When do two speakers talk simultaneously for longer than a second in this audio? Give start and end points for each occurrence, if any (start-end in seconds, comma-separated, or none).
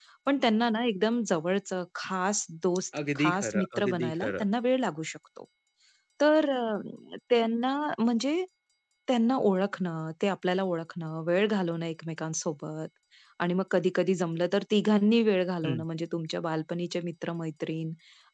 3.2-4.4